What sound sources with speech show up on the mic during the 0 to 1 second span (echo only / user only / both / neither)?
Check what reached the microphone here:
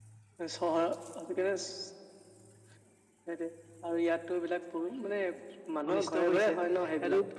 echo only